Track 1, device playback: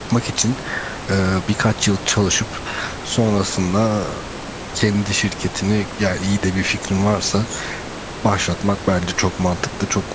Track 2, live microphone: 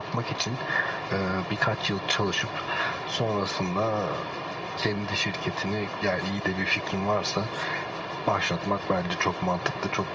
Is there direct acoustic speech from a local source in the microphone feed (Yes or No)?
No